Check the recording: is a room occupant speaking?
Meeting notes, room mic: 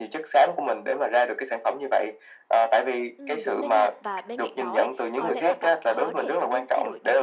Yes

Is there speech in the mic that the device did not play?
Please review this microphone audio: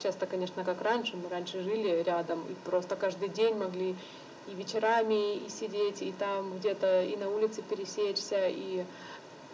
No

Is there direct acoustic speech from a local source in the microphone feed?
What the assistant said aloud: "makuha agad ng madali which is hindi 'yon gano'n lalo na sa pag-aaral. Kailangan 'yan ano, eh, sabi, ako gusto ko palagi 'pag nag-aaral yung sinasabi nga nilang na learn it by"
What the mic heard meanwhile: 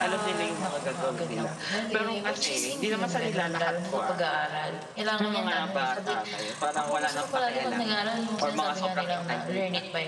Yes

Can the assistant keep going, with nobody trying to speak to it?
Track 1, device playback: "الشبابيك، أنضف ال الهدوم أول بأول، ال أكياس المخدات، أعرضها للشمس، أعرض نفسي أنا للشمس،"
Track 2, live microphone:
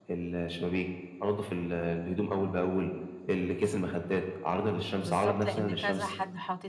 No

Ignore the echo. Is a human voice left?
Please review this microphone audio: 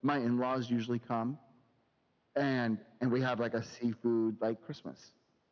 No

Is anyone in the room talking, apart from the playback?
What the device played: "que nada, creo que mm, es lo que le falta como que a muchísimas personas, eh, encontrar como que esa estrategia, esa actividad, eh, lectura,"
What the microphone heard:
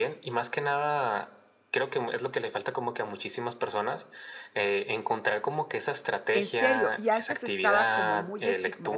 Yes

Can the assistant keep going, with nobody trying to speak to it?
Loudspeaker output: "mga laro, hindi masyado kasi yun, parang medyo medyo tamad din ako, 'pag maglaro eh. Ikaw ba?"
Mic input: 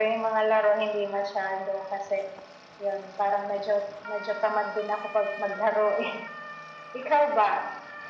Yes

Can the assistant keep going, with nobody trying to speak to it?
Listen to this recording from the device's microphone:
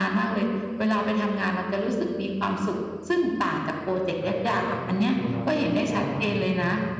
No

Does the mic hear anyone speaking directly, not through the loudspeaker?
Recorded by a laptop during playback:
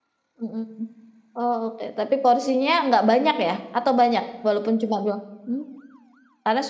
Yes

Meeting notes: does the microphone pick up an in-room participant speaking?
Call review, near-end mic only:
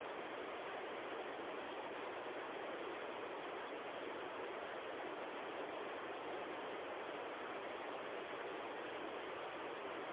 No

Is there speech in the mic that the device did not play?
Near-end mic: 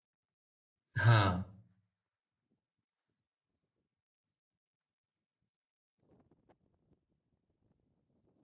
Yes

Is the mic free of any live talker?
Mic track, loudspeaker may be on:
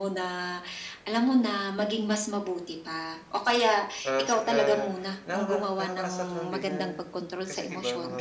No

